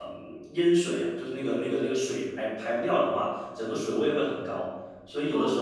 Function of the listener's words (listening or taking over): listening